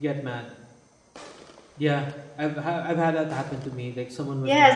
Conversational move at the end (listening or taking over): taking over